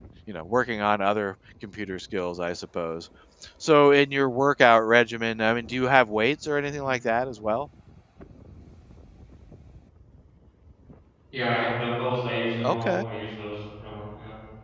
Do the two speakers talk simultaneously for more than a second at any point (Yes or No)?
No